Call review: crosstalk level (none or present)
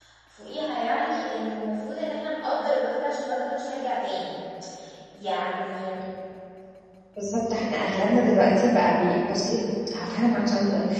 none